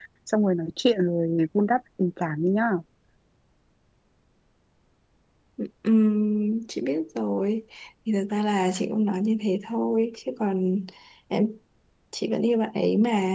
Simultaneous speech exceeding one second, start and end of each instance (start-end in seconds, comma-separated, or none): none